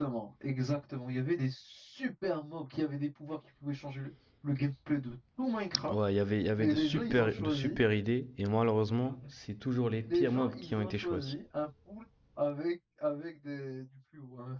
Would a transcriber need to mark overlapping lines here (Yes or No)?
Yes